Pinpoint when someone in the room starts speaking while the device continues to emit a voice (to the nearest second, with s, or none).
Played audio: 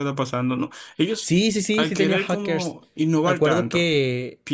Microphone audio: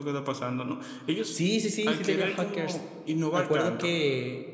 none